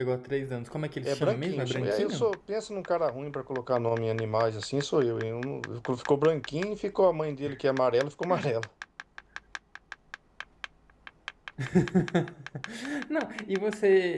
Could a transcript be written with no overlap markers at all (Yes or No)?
No